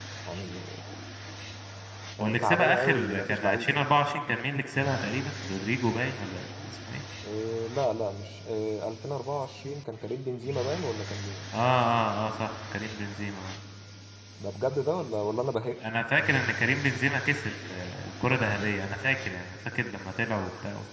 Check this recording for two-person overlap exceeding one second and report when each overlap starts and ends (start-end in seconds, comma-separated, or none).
2.2-3.8